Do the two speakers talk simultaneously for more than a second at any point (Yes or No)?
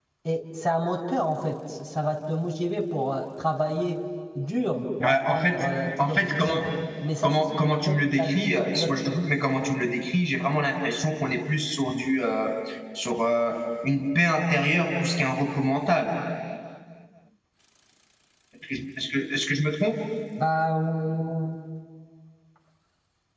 Yes